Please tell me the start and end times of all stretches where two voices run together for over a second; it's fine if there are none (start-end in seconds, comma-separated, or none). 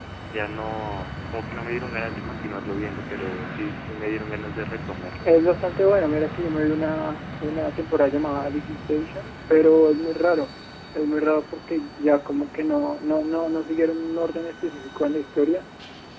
none